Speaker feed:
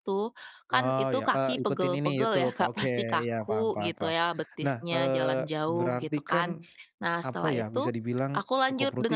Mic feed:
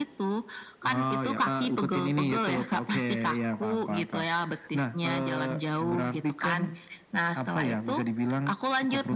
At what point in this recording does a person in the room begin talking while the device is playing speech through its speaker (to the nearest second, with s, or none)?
none